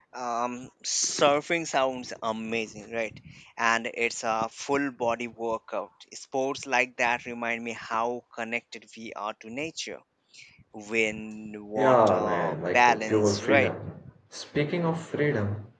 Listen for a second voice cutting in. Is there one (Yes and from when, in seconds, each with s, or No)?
Yes, from 11.8 s